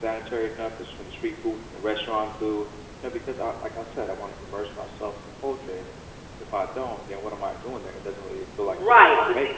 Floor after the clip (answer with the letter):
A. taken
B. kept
A